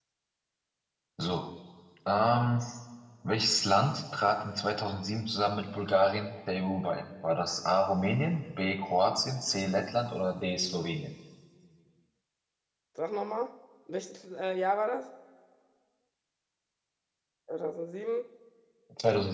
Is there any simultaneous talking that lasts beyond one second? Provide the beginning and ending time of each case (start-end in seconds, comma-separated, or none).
none